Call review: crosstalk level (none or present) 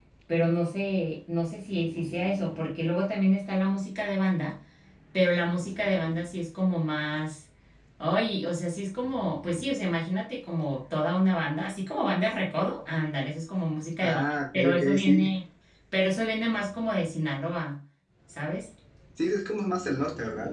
present